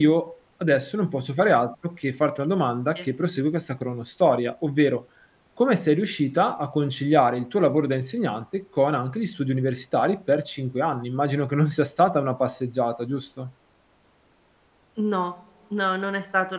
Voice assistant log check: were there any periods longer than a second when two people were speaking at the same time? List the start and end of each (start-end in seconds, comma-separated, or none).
none